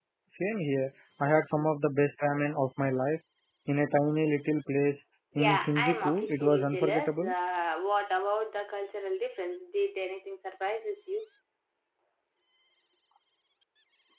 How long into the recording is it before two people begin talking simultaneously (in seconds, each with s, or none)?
5.3 s